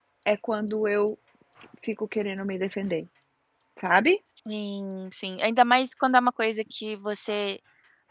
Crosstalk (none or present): none